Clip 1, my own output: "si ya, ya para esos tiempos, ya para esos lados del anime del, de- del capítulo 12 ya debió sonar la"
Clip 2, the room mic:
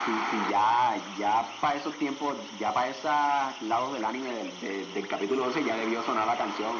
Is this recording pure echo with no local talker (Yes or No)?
Yes